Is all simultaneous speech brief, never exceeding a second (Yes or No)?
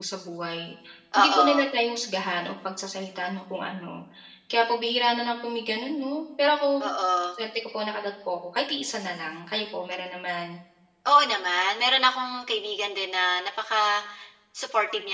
Yes